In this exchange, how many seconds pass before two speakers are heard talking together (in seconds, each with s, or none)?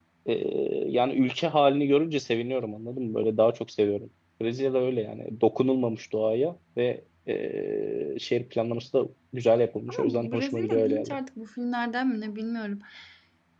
9.9 s